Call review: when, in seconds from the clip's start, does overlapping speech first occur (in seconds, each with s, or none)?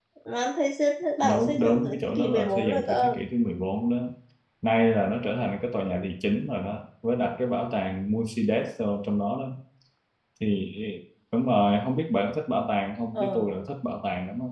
1.2 s